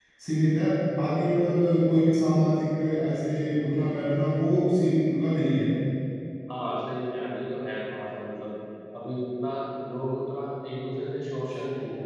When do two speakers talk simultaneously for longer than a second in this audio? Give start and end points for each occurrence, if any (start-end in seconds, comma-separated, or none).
none